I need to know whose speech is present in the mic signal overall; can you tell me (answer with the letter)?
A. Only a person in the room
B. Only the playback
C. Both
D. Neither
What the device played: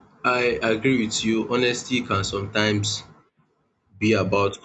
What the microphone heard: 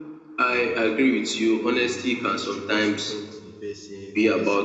C